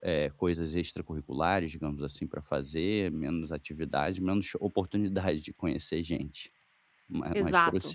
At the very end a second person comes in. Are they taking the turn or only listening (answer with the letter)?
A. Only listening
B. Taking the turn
B